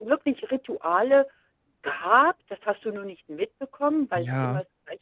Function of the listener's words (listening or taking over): listening